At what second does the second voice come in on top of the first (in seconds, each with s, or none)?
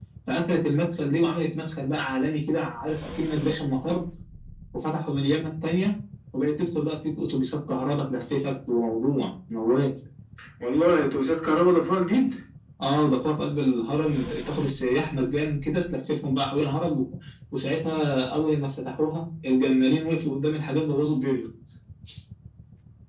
none